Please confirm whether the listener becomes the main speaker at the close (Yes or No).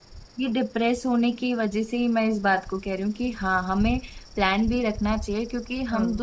No